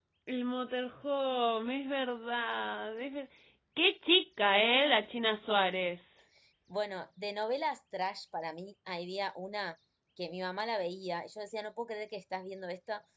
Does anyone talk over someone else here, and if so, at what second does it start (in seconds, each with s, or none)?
none